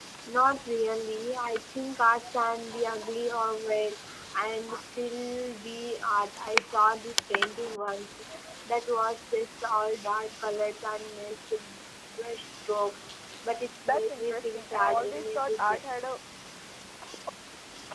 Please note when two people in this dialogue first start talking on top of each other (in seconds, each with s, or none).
13.9 s